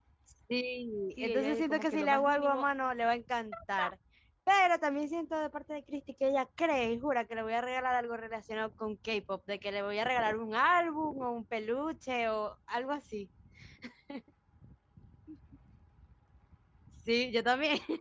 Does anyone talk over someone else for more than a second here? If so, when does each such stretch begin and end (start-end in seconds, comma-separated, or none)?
1.2-2.6